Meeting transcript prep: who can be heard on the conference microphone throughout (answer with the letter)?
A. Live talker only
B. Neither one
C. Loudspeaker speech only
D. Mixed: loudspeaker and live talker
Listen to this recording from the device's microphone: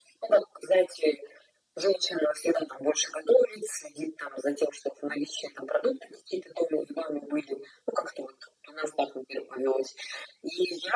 C